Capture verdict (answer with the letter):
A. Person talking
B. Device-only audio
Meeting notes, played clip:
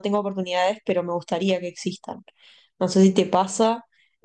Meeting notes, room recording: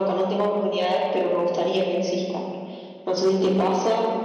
B